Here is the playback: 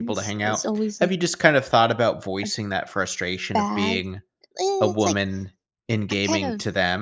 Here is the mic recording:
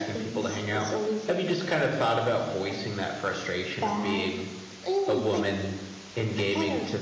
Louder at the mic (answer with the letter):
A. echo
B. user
A